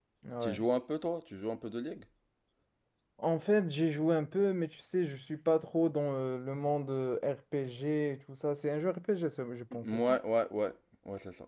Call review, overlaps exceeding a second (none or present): none